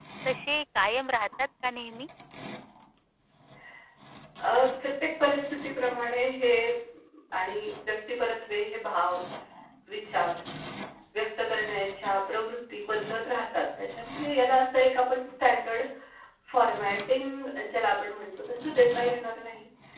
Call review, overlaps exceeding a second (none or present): none